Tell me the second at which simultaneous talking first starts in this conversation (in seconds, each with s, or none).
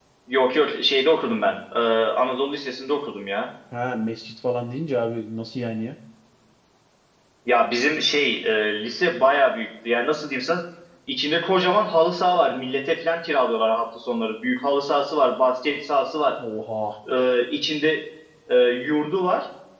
none